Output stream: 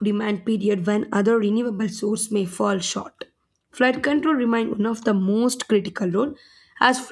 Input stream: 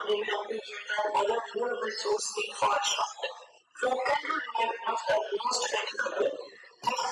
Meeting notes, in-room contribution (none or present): none